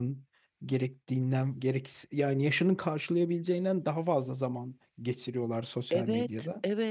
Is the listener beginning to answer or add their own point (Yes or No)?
Yes